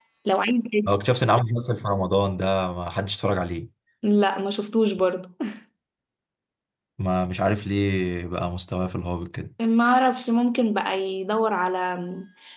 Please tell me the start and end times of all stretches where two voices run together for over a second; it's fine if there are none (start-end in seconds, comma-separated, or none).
none